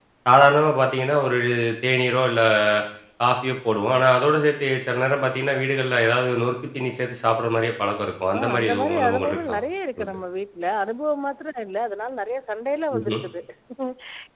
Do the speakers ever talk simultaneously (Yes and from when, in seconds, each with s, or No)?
Yes, from 8.3 s